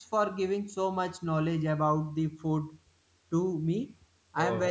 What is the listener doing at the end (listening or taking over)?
listening